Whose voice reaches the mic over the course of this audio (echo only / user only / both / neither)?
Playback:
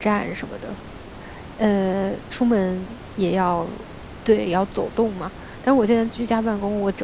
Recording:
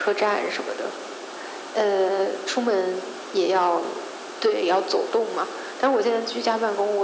echo only